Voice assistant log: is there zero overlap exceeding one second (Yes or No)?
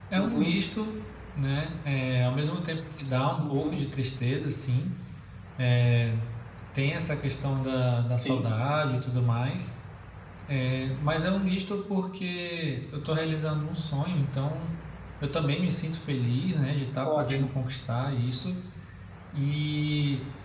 Yes